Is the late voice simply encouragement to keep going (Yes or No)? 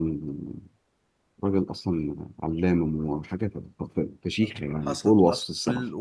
No